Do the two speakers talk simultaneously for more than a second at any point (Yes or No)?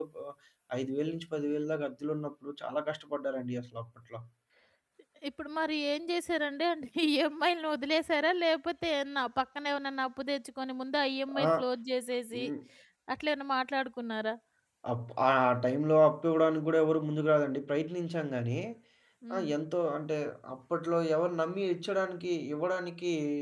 No